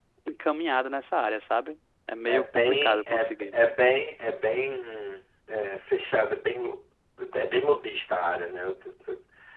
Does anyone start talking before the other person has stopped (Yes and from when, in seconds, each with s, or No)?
Yes, from 2.3 s